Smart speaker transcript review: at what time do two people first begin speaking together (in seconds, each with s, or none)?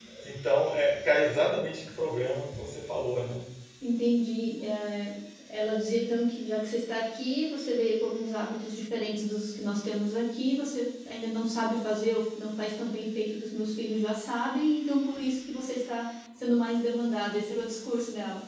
none